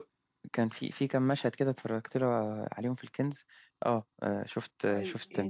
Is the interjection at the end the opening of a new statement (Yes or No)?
Yes